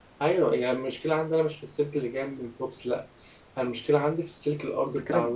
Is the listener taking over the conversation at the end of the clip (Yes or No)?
Yes